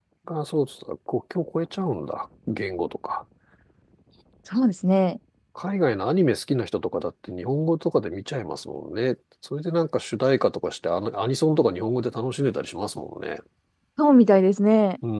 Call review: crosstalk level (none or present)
none